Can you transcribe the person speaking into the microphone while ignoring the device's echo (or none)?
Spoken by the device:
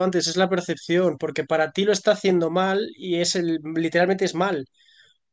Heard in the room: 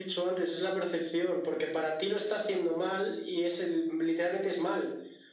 none